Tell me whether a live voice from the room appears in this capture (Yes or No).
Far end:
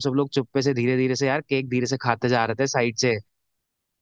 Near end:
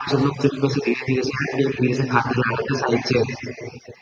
No